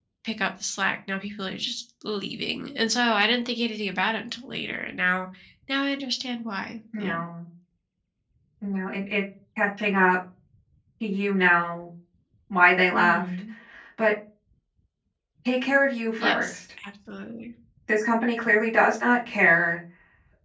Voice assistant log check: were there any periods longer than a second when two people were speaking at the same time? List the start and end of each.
none

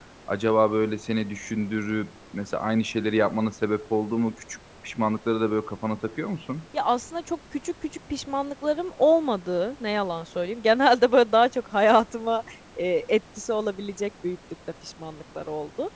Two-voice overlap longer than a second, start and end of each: none

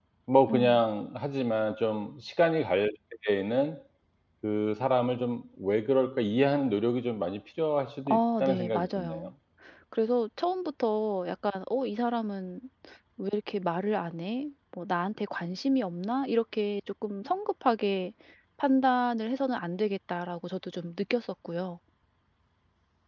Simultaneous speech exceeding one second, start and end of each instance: 8.1-9.3

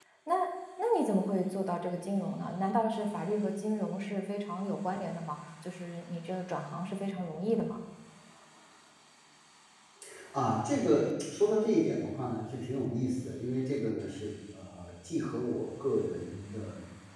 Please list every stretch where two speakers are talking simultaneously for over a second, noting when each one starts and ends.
none

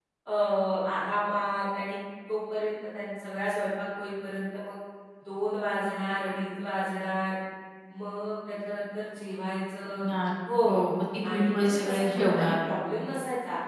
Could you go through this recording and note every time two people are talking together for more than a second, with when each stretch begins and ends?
11.3-12.6

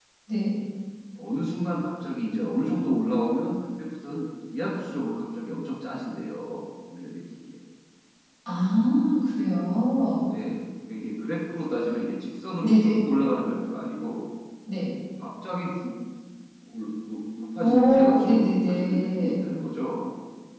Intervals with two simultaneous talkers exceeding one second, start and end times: 17.6-19.3

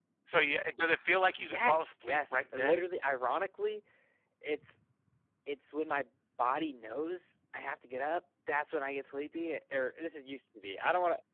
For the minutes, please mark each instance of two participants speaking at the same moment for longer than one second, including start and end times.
1.4-2.8

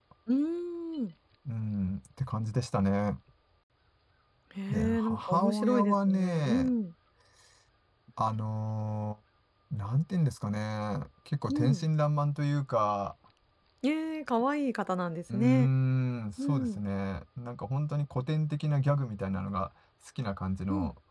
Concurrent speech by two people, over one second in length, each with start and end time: 4.7-6.7

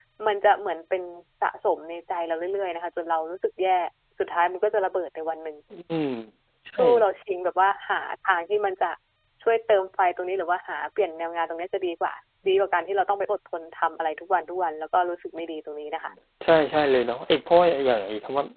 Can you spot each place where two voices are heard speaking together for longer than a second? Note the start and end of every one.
none

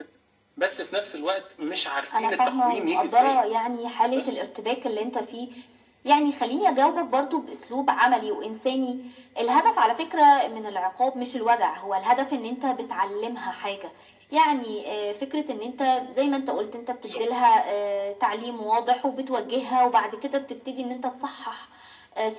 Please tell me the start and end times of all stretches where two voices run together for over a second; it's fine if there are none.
2.1-3.4

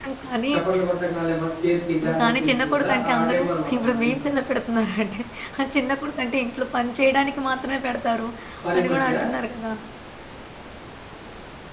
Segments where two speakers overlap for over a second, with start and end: 2.2-4.3

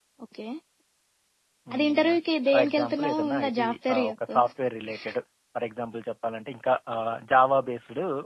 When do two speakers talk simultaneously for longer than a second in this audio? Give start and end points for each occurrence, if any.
2.5-4.3

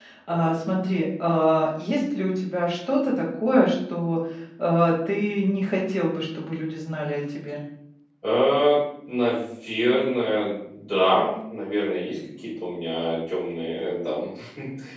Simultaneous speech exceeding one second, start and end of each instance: none

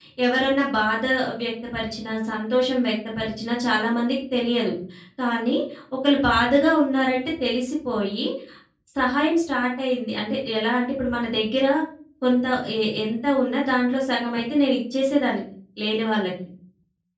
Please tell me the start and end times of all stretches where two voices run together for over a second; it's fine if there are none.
none

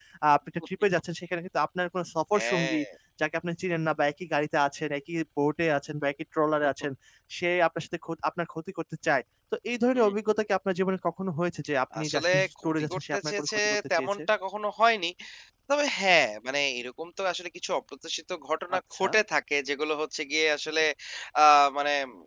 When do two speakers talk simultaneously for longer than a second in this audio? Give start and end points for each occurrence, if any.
12.0-14.2

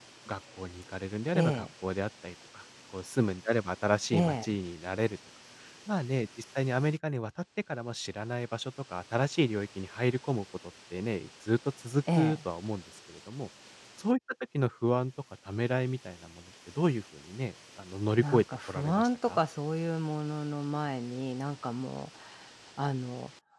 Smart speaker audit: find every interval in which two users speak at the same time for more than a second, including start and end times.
18.2-19.4

